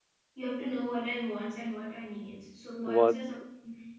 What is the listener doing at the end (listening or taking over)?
listening